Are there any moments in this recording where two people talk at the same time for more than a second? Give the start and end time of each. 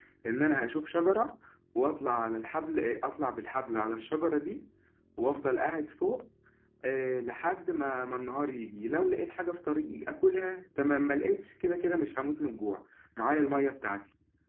none

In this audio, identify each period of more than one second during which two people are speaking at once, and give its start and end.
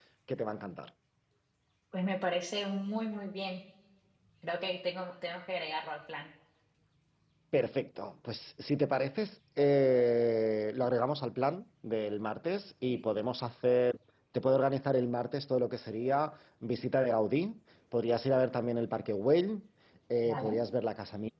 none

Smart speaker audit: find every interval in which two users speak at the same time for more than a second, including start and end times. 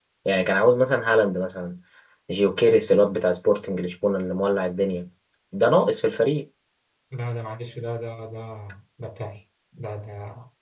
none

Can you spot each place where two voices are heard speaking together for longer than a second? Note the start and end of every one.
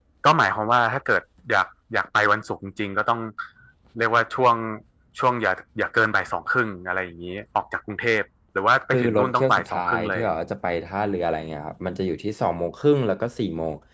8.9-10.2

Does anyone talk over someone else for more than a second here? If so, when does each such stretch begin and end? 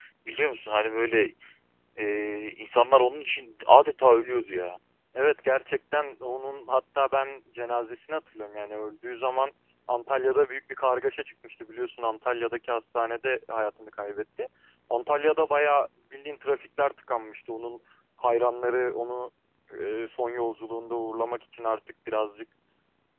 none

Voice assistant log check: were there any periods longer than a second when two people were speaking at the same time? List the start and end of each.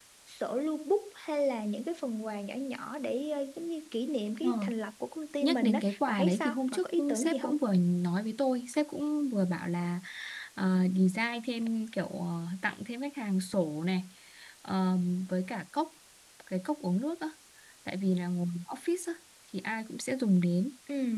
5.4-7.6

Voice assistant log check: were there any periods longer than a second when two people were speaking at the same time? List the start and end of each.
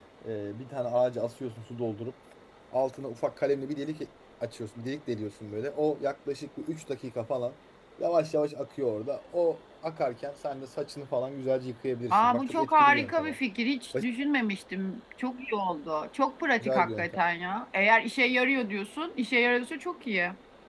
12.1-13.4

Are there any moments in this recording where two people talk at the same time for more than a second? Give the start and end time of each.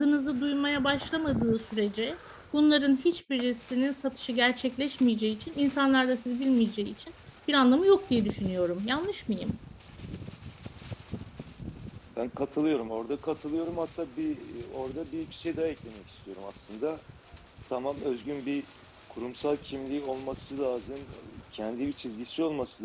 none

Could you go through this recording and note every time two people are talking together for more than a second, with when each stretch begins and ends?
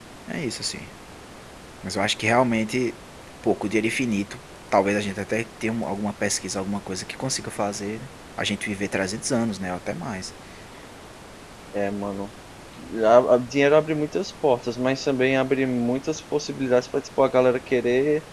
none

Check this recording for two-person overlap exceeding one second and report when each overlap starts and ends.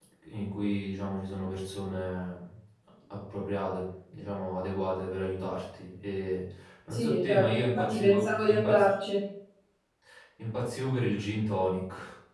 6.9-8.8

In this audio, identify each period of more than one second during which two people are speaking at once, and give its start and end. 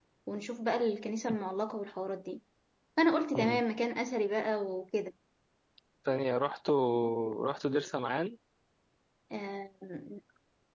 none

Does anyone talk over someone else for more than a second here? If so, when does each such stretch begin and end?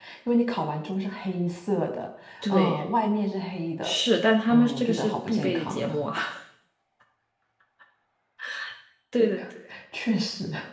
4.5-5.9

